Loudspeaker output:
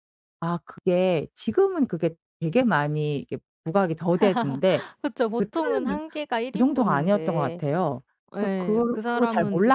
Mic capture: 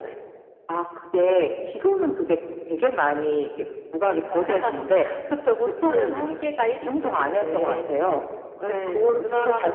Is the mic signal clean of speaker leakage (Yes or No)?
No